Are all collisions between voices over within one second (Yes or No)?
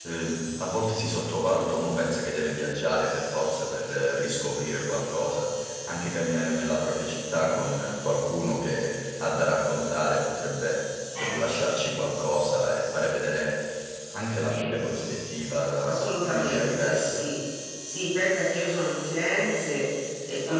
No